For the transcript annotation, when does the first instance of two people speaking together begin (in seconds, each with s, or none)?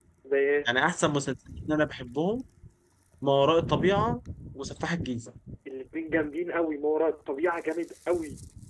none